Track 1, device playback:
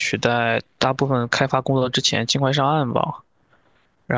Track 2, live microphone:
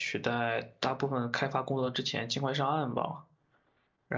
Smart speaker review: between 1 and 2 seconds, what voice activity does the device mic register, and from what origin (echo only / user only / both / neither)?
echo only